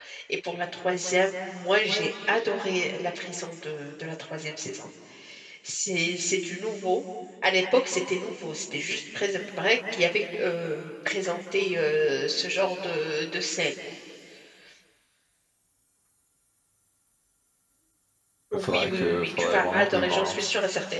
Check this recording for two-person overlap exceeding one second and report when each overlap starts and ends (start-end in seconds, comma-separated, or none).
18.6-20.5